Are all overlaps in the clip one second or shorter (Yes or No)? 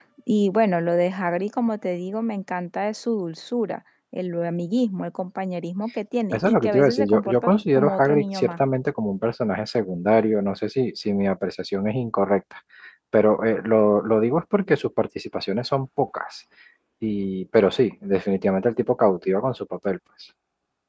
No